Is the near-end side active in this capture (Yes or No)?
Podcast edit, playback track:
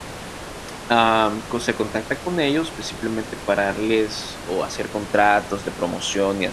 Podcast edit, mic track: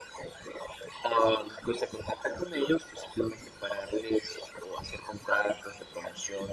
No